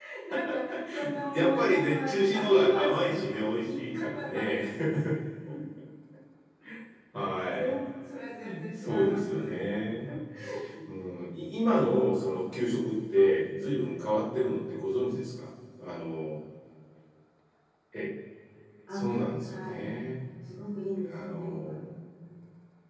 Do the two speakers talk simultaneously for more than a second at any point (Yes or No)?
Yes